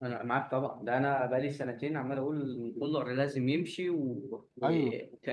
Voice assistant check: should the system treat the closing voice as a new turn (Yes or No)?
Yes